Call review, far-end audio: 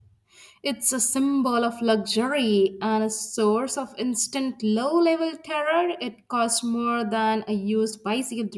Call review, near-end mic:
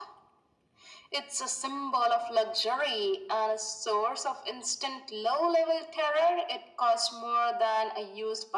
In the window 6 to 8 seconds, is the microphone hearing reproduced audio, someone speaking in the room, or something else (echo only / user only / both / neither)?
echo only